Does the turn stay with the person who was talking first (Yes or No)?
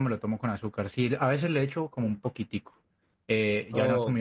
Yes